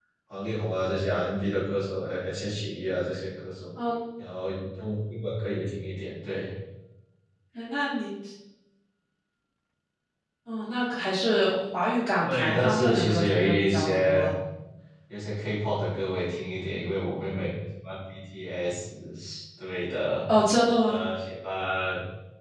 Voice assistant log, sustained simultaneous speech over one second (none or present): present